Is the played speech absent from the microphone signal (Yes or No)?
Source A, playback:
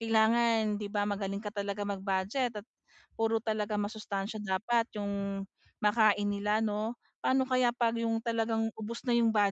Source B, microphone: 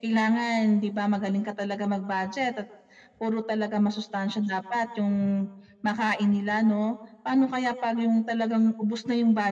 No